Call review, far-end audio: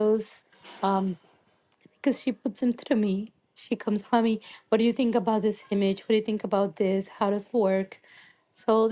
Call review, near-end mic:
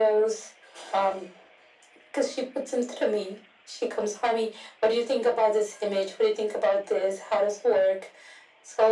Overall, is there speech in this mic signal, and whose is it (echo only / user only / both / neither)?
echo only